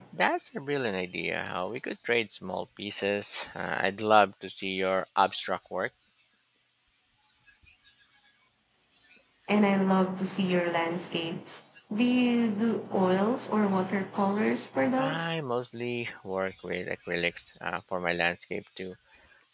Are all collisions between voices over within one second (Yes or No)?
Yes